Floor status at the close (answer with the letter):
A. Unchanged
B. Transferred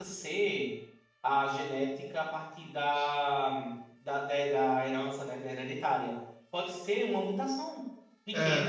A